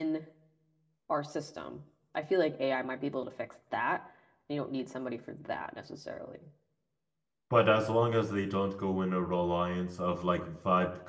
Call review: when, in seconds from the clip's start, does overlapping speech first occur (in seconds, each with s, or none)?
none